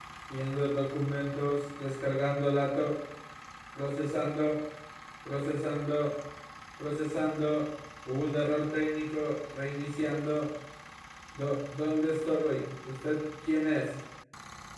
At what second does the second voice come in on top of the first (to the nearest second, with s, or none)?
none